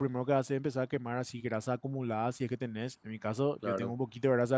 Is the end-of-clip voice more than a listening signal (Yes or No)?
No